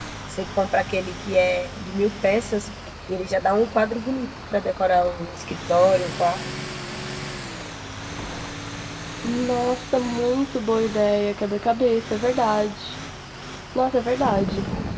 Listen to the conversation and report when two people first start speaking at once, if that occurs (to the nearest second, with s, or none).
none